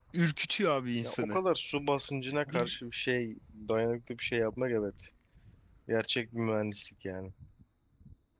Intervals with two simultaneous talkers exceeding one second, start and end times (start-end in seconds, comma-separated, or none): none